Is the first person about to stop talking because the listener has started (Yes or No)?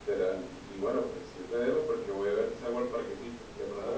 No